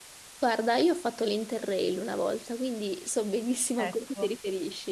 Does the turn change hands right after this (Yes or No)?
No